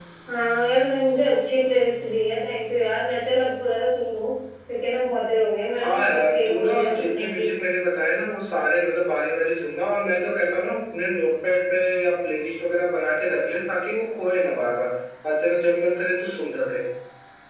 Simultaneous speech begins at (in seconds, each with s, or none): 5.8 s